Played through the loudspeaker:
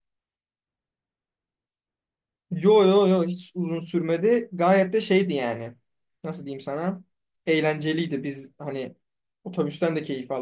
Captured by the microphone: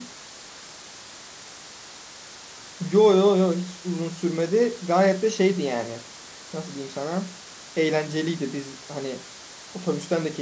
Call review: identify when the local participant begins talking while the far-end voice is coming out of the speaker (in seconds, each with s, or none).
none